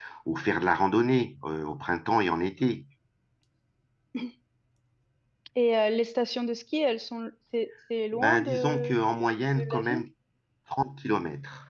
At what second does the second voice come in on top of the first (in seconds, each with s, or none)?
8.1 s